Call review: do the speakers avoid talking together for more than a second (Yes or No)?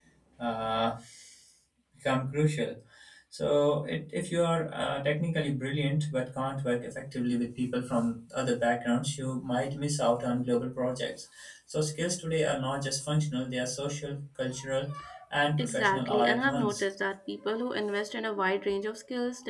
No